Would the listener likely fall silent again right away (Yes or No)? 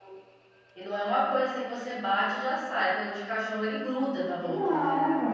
No